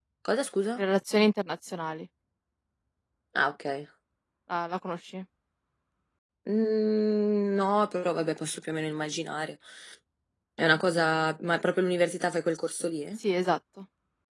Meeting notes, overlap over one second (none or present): none